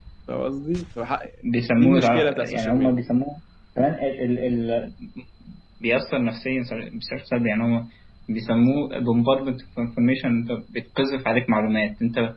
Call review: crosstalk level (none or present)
present